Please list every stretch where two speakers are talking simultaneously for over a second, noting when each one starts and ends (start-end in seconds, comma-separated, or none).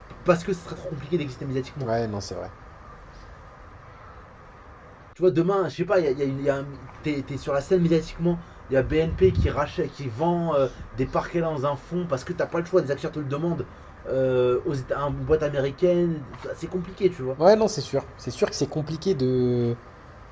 none